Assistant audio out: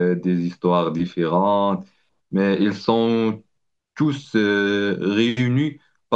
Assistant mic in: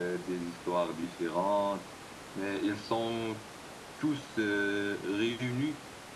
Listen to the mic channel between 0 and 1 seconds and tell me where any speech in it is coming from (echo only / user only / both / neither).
echo only